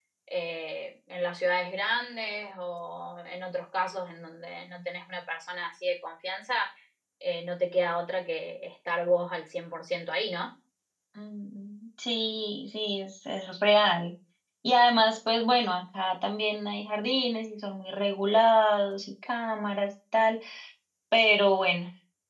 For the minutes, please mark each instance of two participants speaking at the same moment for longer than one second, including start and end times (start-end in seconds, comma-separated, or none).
none